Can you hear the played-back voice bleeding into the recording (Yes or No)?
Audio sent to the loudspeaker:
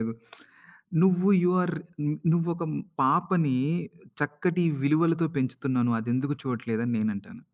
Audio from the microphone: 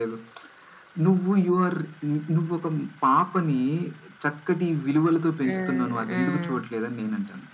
Yes